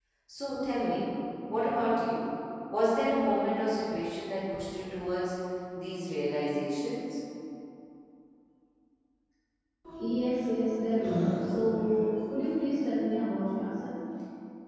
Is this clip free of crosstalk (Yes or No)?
Yes